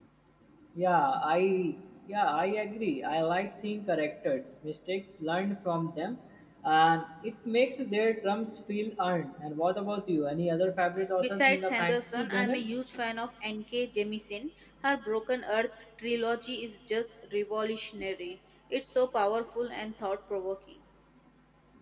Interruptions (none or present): present